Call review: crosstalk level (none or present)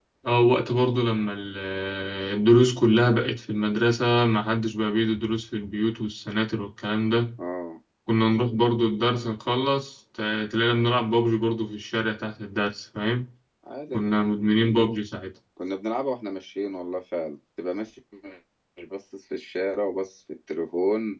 none